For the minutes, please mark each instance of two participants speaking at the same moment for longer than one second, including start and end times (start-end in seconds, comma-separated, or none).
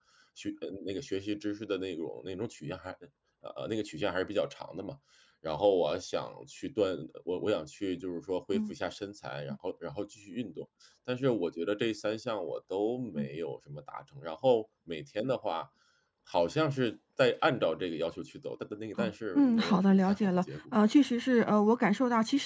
19.0-20.4